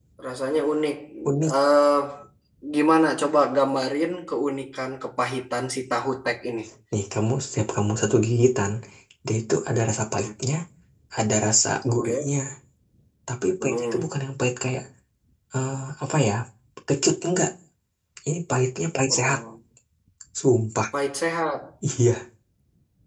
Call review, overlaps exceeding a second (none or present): none